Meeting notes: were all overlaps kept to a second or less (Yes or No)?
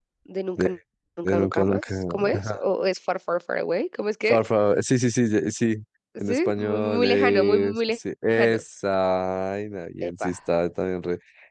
No